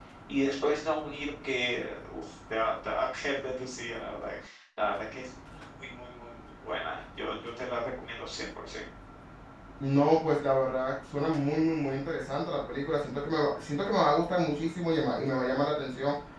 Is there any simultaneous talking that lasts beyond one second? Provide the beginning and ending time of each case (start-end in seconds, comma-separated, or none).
none